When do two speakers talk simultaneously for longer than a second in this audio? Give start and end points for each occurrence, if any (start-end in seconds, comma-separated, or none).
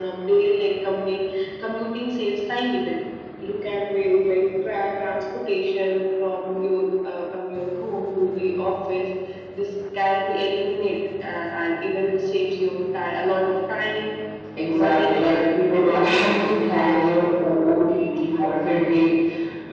14.6-17.1